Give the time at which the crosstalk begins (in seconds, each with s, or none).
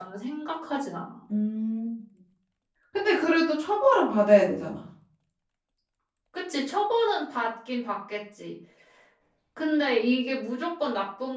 none